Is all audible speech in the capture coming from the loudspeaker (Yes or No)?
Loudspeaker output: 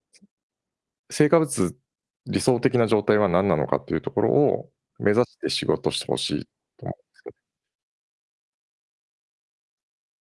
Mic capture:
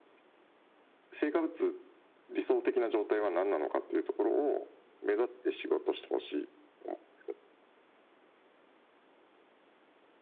Yes